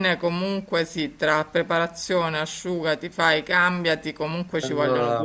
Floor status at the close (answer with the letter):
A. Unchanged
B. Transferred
A